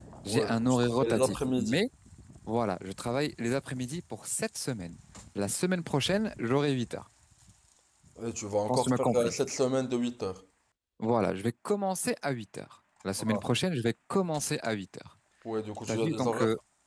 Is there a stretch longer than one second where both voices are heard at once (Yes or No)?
Yes